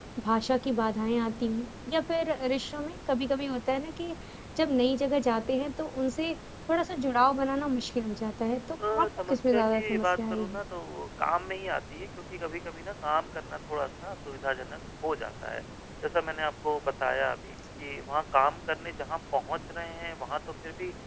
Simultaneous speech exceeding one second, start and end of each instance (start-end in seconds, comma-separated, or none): 8.9-10.6